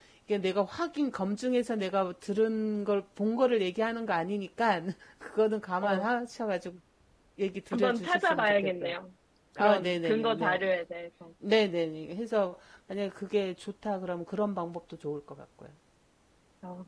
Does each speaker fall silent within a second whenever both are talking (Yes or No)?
No